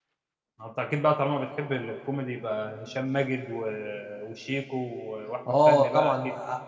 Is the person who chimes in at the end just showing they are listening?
No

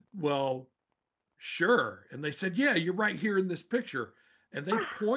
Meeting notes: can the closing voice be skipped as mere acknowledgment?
Yes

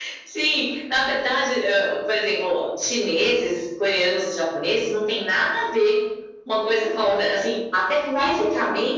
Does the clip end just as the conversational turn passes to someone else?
No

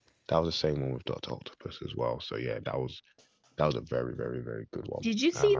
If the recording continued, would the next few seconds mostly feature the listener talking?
Yes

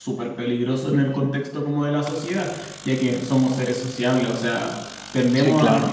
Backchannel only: Yes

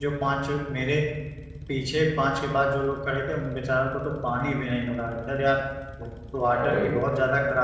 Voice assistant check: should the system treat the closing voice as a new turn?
No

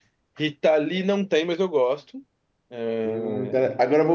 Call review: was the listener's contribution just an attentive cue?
No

